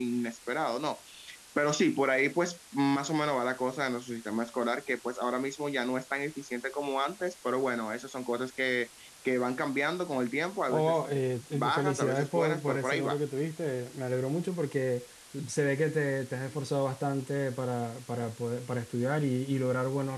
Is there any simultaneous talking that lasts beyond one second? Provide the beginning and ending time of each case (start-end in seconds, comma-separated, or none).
11.5-13.2